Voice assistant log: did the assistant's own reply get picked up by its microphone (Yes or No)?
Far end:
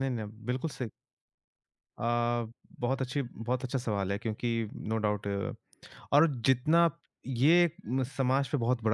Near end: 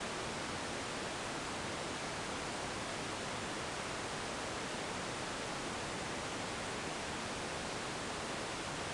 No